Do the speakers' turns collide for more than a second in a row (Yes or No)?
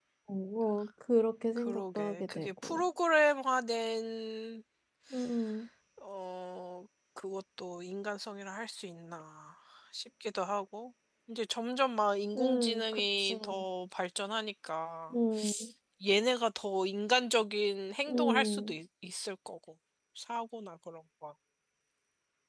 Yes